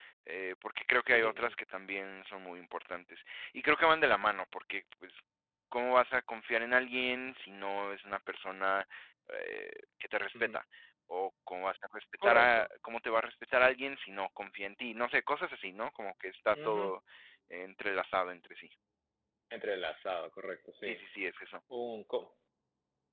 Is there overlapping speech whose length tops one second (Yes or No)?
No